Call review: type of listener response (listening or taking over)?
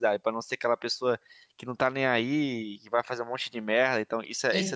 taking over